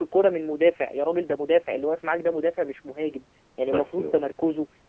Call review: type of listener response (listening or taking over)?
listening